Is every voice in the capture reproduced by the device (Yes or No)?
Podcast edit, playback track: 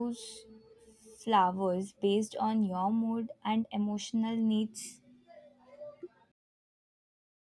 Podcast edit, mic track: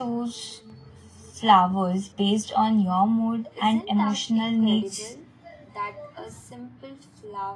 No